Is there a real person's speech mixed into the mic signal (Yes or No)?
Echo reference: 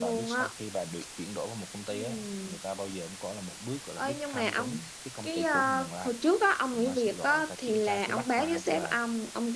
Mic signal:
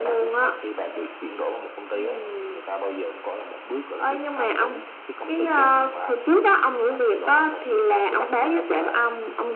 No